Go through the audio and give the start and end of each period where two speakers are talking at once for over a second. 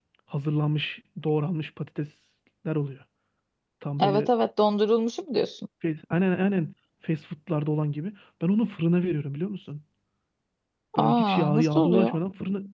11.0-12.2

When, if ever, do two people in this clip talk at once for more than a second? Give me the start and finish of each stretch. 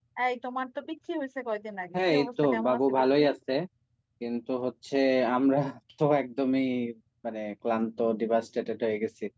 1.9-3.2

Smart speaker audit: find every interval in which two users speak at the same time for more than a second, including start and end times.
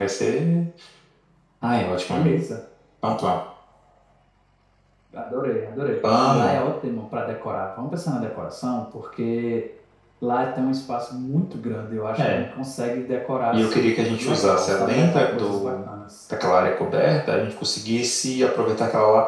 13.5-15.7

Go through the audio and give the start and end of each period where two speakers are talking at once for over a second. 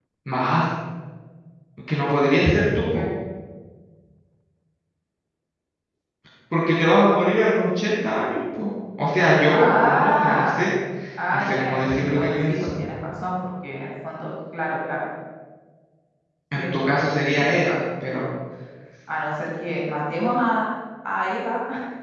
9.4-10.6, 11.3-12.7

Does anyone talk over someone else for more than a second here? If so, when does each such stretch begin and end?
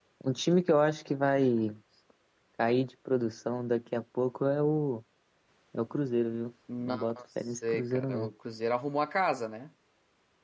6.8-8.3

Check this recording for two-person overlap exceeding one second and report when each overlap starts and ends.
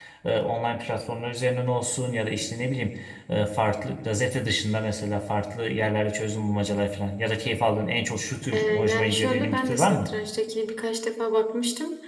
8.5-10.1

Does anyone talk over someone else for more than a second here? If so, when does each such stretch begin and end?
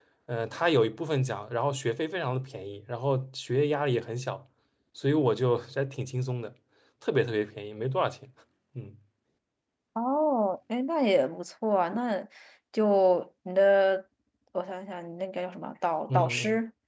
none

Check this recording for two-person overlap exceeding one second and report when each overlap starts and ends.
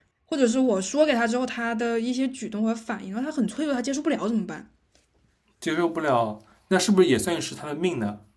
none

